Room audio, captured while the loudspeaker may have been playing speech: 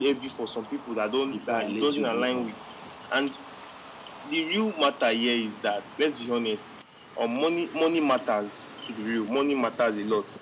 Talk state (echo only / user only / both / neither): both